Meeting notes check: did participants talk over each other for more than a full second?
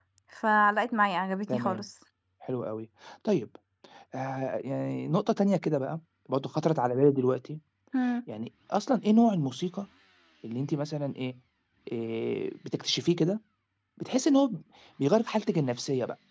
No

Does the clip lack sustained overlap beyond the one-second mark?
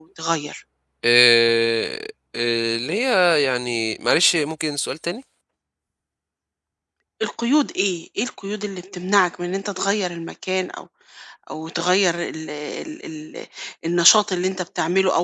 Yes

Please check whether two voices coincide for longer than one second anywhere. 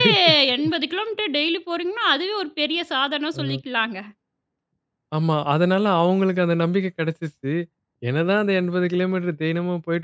No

